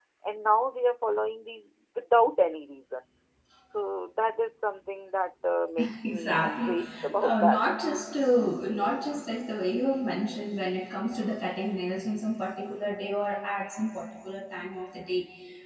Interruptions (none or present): present